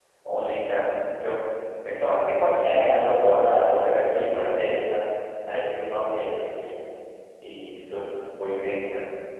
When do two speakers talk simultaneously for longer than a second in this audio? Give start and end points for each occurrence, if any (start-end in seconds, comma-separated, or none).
2.6-4.6